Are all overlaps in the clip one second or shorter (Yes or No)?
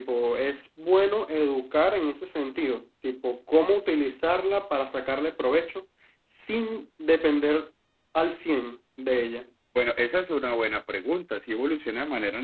Yes